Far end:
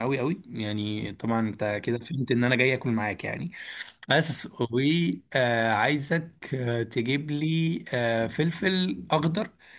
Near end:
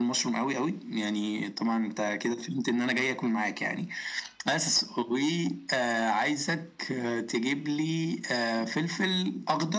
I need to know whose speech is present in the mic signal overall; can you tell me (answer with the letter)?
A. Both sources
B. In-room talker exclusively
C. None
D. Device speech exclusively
D